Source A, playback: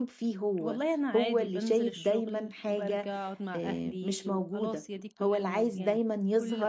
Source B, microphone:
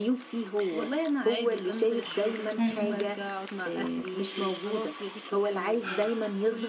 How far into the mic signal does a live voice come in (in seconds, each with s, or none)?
2.6 s